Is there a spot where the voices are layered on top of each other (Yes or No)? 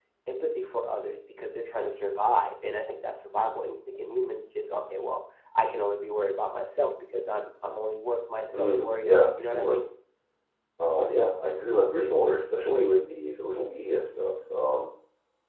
Yes